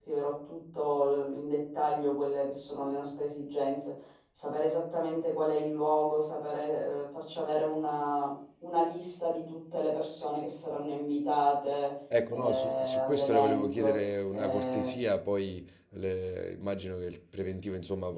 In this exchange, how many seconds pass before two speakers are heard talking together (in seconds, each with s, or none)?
12.1 s